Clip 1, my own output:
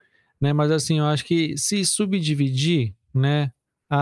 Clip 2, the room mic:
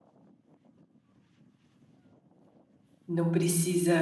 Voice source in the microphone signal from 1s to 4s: user only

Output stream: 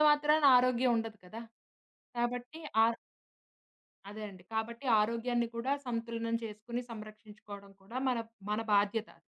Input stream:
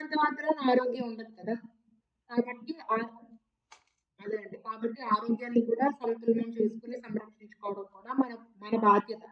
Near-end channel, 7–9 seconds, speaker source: echo only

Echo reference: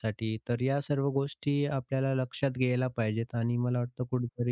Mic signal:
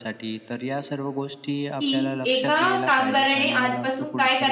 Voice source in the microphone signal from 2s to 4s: both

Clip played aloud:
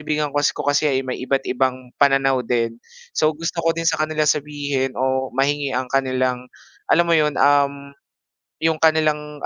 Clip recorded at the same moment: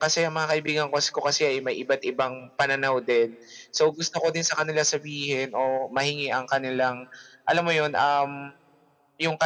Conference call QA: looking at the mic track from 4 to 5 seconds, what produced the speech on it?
echo only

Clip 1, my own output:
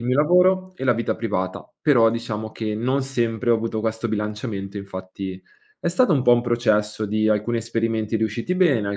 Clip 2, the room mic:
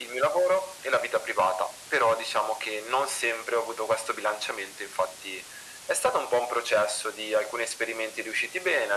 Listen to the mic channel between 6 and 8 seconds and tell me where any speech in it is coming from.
echo only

